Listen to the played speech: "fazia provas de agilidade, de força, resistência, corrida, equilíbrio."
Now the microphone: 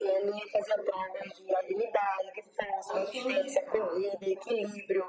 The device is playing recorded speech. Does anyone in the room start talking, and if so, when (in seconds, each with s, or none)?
2.9 s